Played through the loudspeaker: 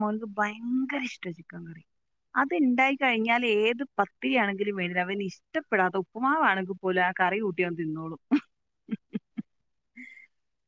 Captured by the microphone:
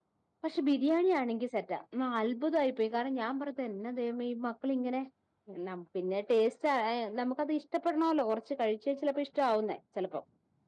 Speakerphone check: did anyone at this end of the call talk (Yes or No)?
Yes